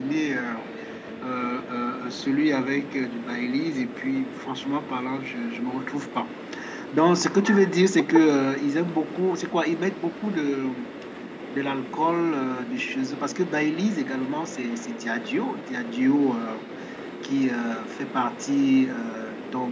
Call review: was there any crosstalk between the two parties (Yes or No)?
No